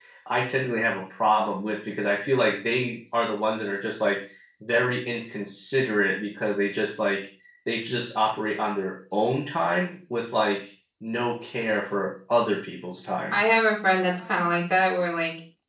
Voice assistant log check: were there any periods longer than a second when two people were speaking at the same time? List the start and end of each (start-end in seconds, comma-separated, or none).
none